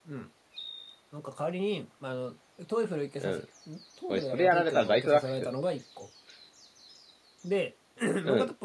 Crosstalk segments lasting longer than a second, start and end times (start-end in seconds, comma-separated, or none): 4.1-5.5